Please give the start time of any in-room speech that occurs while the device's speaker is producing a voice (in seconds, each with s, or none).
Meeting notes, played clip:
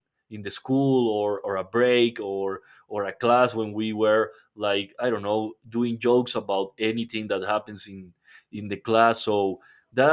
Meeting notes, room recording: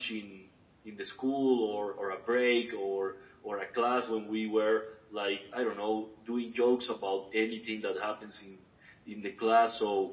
none